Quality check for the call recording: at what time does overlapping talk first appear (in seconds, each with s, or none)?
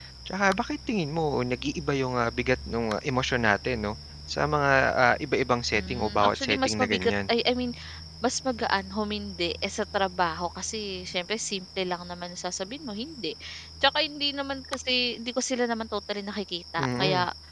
5.7 s